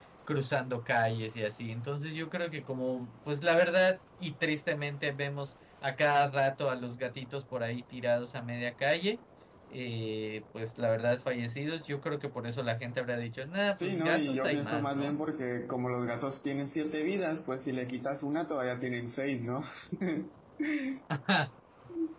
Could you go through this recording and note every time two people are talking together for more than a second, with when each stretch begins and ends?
13.8-15.1

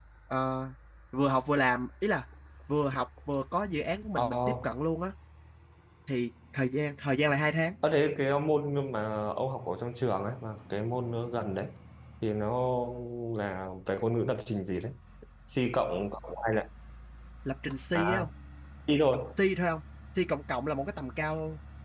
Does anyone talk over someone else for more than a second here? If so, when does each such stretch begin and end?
none

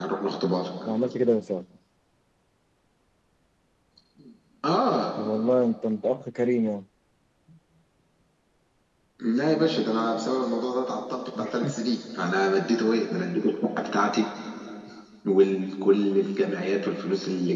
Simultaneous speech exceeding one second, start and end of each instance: none

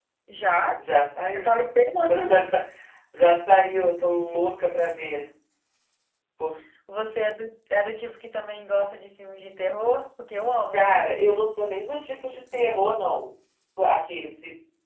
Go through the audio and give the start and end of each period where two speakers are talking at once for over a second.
none

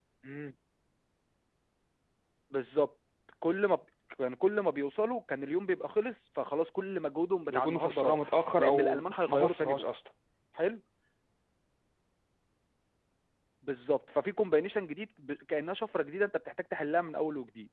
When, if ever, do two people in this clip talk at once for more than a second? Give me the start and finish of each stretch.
7.5-9.8

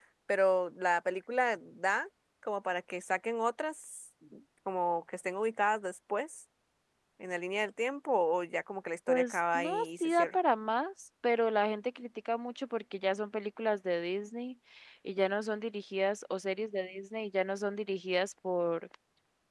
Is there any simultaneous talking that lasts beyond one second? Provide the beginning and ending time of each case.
9.1-10.4

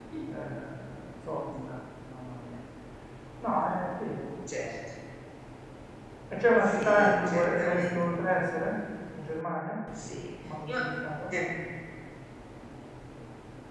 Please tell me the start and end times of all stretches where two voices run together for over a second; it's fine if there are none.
6.7-8.0

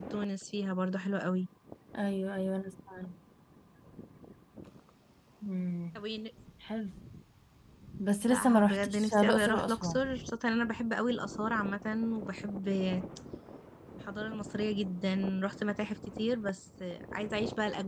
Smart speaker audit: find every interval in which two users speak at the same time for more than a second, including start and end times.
8.3-10.0

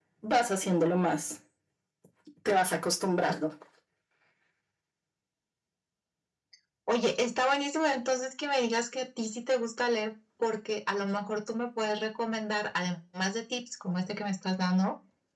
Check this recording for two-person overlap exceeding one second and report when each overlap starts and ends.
none

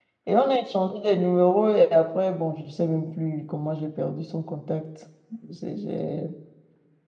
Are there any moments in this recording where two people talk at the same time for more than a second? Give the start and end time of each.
none

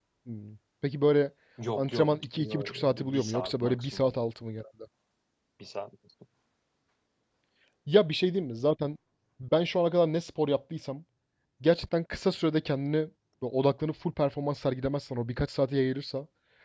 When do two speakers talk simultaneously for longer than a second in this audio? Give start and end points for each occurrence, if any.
1.8-4.1

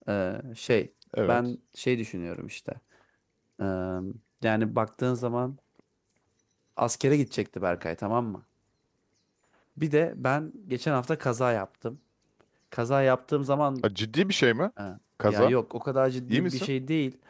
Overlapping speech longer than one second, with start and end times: none

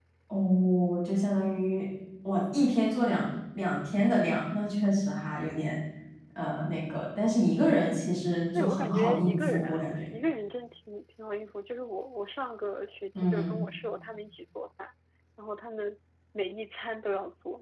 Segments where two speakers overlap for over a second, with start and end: 8.5-10.0

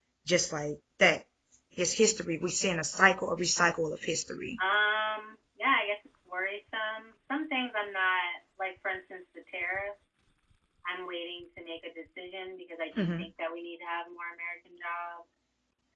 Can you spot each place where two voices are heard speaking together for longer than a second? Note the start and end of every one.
none

